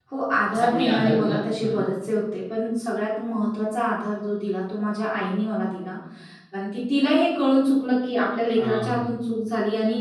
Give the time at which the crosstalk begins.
0.5 s

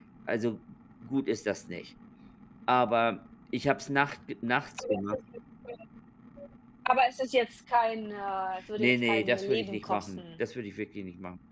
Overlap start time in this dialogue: 8.8 s

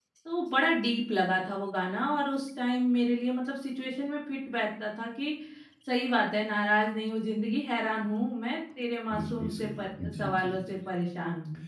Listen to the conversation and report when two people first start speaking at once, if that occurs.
9.1 s

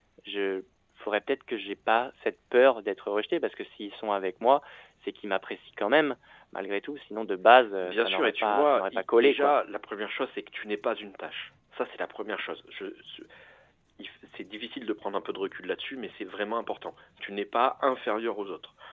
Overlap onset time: 7.8 s

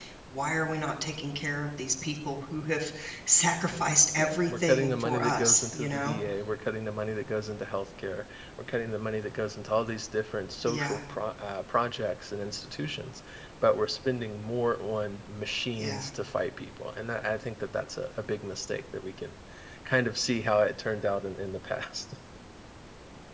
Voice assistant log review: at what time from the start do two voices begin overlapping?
4.2 s

